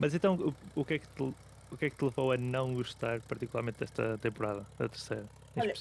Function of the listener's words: taking over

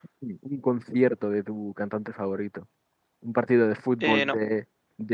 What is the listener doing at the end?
listening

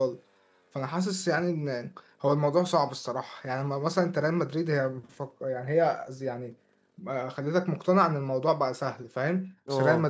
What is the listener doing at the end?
listening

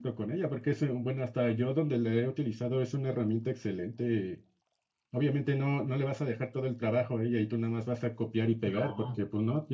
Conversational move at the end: listening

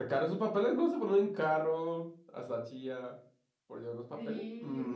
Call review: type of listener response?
taking over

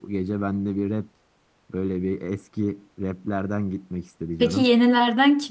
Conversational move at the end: taking over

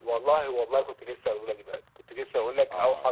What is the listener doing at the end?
taking over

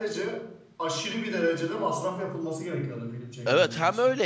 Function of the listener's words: taking over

